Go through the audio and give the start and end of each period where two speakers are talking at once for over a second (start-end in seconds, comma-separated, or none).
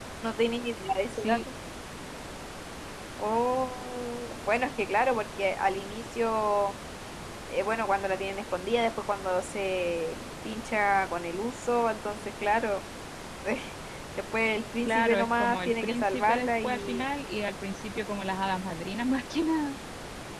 14.8-17.0